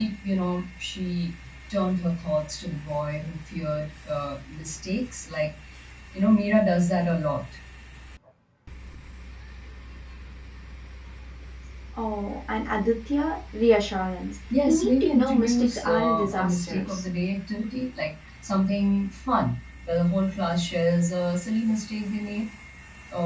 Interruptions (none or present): present